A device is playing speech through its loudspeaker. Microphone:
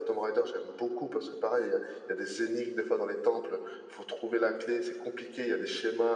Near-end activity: none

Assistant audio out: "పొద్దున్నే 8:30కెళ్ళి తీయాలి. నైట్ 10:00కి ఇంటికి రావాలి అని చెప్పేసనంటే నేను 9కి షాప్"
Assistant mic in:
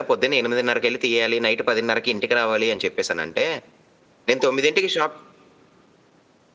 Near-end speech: none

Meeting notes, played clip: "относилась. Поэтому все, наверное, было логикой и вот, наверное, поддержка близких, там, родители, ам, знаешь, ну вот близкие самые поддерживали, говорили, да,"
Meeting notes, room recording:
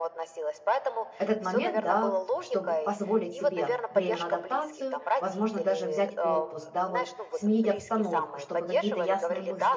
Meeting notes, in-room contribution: present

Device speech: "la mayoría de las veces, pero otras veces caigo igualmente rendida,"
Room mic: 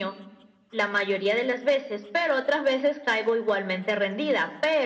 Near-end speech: none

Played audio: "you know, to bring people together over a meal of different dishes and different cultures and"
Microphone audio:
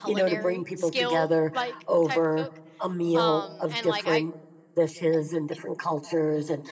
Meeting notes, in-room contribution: present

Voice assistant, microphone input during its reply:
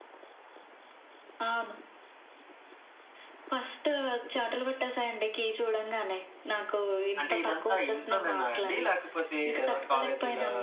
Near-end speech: present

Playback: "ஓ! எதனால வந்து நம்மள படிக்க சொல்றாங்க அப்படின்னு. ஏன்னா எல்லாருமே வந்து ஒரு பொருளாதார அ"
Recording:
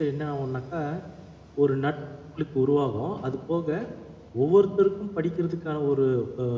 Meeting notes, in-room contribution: present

